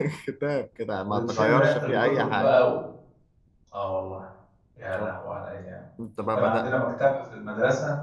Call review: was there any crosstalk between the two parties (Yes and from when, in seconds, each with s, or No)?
Yes, from 1.0 s